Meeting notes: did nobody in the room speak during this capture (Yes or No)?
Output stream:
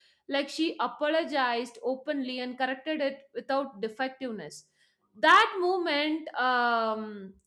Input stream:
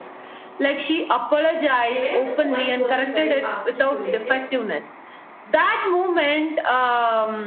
No